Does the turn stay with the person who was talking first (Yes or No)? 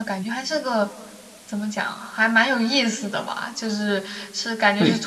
Yes